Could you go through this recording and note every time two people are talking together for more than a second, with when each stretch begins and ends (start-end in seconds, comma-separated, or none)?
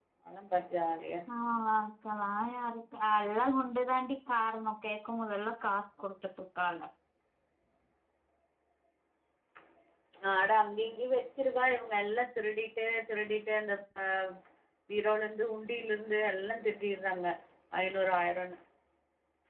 none